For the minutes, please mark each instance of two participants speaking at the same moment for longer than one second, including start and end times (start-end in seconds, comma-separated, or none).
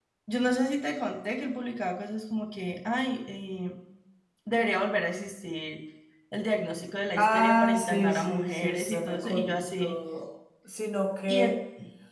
7.2-10.0